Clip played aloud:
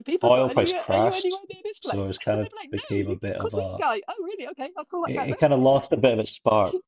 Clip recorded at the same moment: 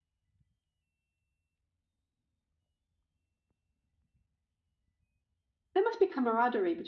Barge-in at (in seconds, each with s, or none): 5.7 s